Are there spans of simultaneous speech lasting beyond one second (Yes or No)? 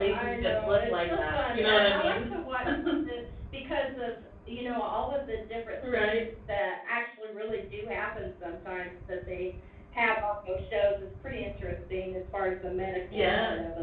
Yes